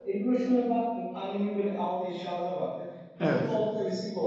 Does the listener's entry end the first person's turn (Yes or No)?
No